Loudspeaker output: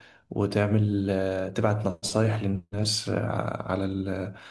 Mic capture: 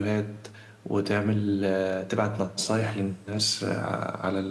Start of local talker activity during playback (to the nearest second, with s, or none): none